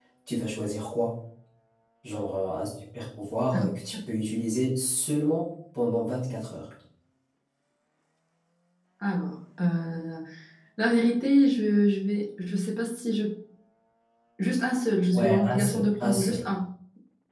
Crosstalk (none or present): present